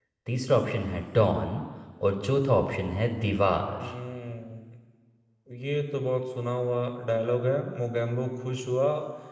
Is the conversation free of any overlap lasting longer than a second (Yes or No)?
Yes